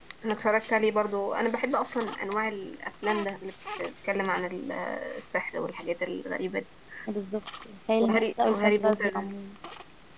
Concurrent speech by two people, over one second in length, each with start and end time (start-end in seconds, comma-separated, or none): 8.0-9.3